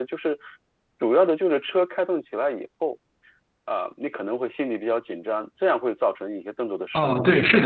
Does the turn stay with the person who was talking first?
No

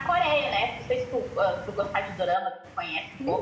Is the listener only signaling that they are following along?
No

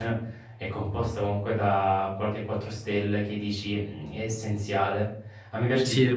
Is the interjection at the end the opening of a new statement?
No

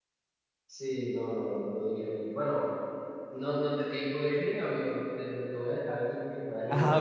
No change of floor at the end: No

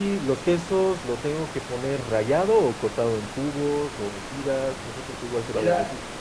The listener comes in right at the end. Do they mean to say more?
Yes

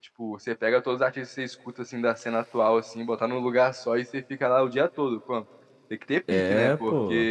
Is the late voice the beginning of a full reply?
No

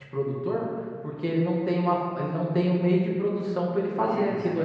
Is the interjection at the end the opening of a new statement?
Yes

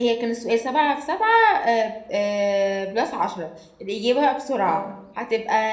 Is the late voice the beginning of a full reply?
No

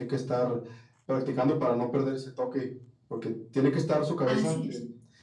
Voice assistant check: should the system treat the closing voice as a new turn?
No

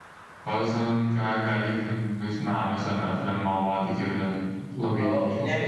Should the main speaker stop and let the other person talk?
Yes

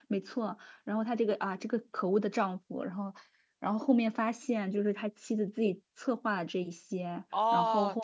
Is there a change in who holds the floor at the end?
Yes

